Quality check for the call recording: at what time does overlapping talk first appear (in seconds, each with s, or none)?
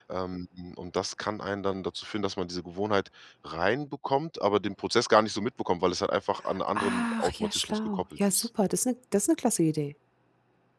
6.8 s